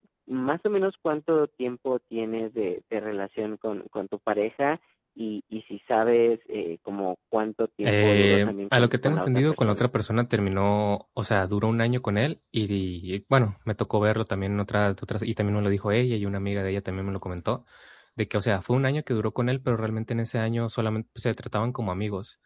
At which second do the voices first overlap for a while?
7.8 s

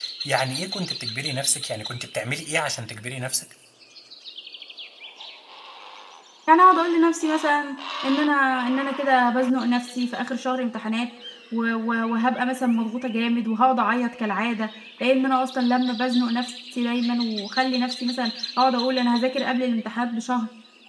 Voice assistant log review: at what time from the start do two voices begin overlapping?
none

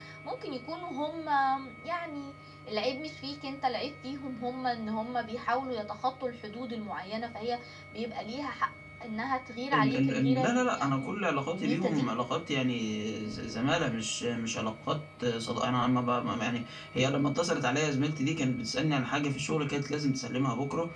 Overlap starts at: 9.7 s

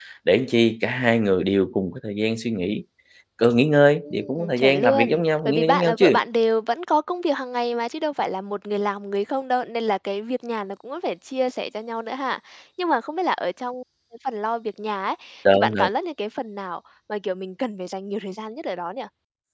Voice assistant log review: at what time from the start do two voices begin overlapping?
4.0 s

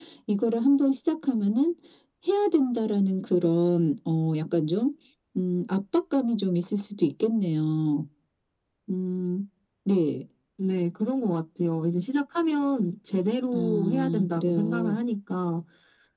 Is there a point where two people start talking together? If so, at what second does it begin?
13.5 s

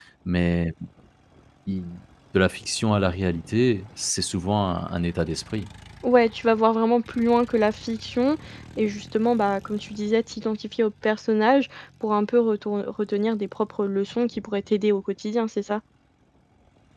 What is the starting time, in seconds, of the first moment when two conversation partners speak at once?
none

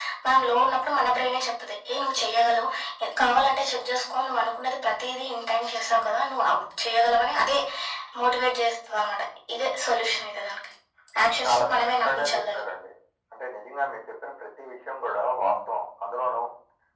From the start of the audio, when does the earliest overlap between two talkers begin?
11.4 s

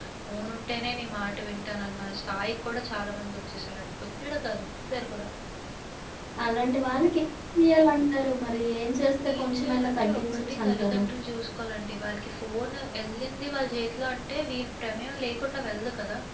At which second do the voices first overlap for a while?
9.2 s

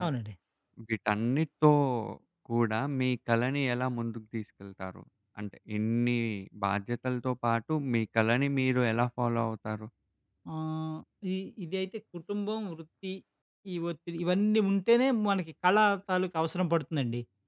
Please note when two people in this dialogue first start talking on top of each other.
none

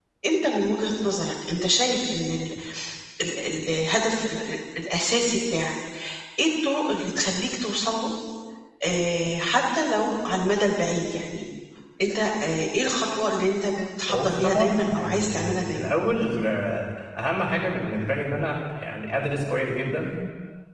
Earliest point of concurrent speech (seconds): 14.1 s

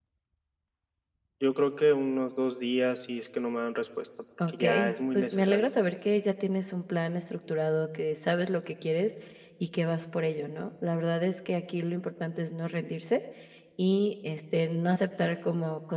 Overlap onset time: 4.4 s

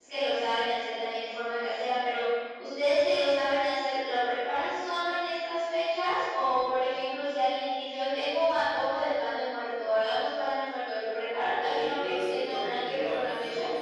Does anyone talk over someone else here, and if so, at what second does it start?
11.6 s

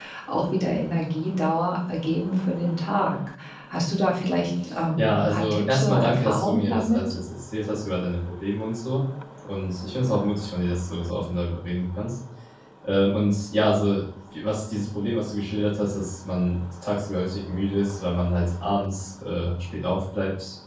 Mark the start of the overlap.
5.0 s

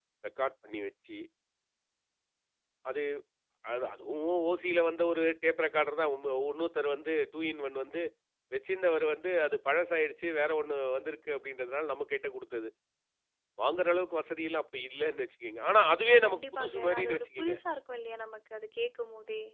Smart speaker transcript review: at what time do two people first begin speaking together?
16.2 s

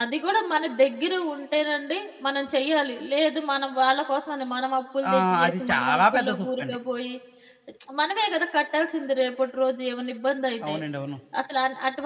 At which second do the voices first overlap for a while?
5.0 s

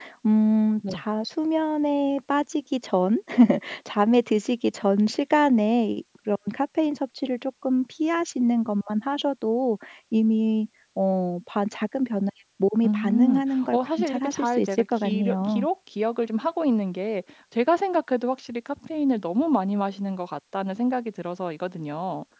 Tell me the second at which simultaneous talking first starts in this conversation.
12.8 s

